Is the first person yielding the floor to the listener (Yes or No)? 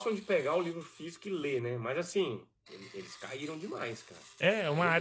Yes